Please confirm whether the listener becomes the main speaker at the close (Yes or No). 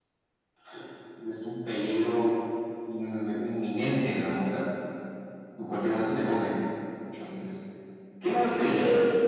Yes